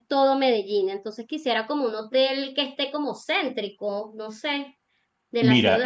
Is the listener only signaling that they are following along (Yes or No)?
No